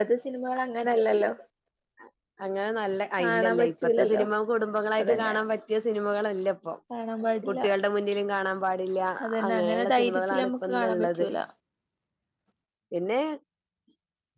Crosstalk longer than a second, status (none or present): present